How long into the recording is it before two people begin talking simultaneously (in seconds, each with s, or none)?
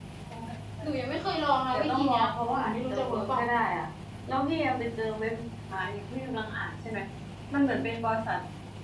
1.7 s